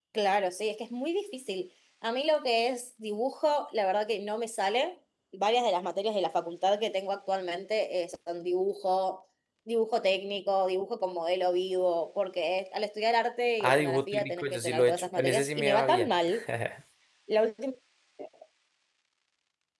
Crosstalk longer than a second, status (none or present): present